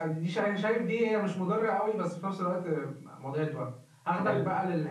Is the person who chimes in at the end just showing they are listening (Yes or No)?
Yes